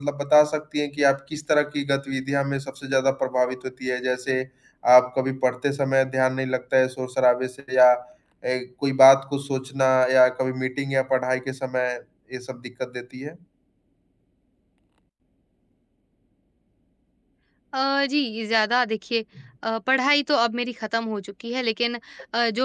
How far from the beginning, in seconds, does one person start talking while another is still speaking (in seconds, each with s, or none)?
none